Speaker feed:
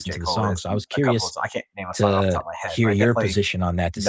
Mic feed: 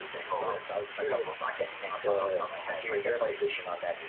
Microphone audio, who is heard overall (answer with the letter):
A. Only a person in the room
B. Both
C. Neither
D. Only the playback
D